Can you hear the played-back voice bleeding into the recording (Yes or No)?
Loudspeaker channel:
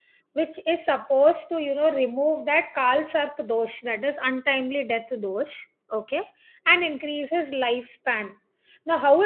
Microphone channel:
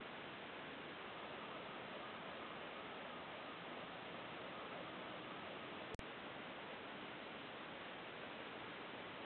No